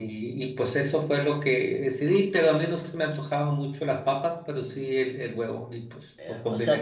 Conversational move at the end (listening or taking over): taking over